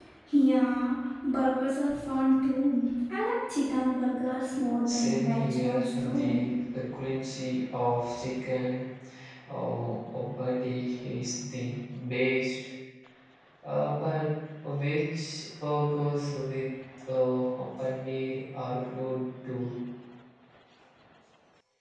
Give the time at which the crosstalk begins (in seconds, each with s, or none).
4.8 s